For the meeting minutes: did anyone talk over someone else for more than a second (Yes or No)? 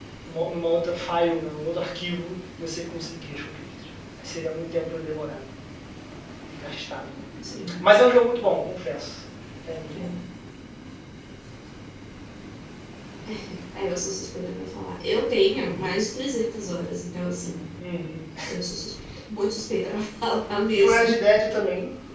No